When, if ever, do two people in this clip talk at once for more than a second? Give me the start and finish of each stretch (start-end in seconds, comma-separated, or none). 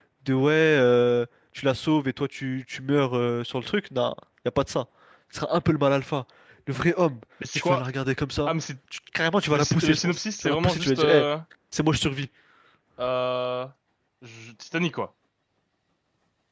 9.5-11.2